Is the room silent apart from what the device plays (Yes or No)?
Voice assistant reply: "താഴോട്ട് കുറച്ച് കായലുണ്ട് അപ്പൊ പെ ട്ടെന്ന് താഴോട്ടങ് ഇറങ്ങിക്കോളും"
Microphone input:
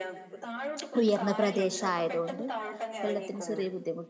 No